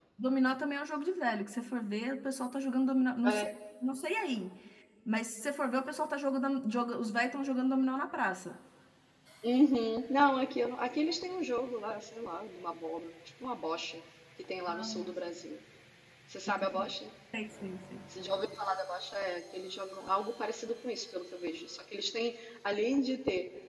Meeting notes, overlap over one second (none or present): none